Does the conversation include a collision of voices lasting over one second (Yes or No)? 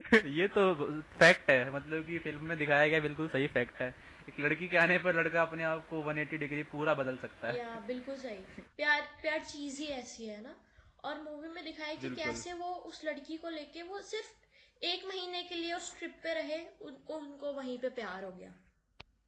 No